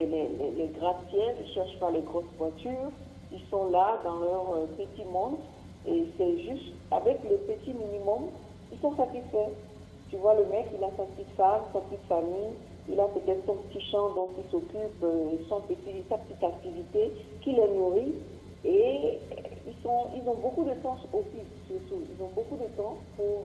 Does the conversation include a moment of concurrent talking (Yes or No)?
No